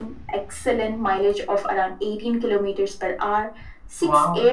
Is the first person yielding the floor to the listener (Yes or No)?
No